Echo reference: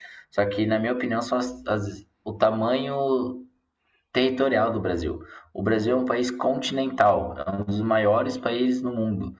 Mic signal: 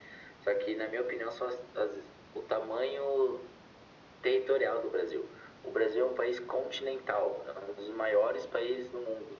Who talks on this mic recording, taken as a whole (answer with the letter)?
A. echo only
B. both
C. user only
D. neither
A